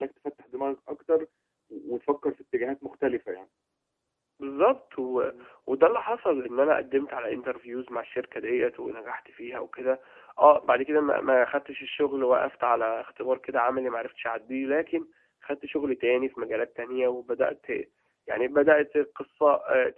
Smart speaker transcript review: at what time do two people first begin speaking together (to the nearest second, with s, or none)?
none